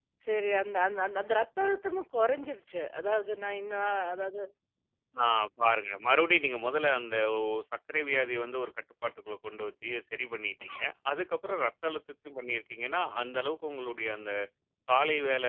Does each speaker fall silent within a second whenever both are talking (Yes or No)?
Yes